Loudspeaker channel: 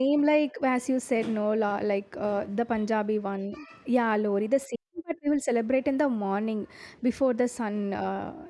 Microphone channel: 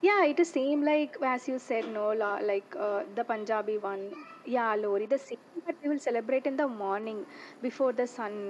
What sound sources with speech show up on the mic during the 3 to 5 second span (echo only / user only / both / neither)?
echo only